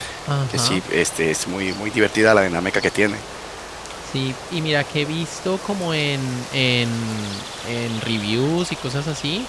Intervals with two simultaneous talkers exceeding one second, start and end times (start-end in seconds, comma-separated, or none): none